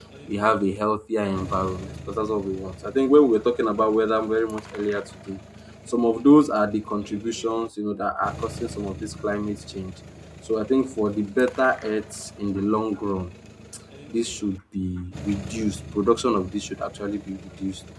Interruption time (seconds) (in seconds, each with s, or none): none